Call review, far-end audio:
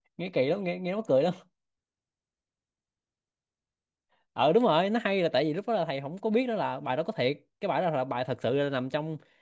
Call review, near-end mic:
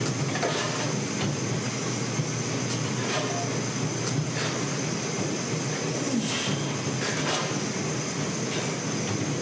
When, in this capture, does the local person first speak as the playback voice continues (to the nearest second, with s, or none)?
none